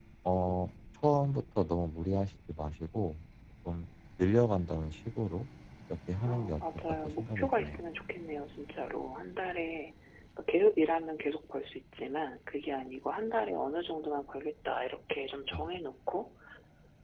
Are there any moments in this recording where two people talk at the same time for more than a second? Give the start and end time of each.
6.2-7.8

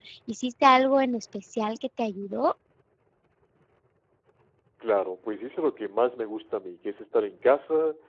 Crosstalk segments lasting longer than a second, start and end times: none

